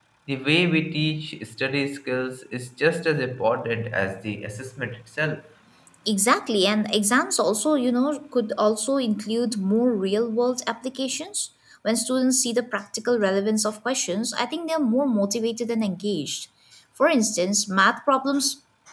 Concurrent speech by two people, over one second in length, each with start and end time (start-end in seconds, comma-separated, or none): none